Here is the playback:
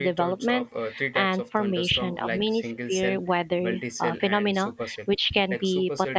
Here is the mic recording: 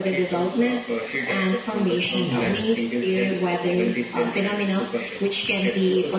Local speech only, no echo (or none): Yeah.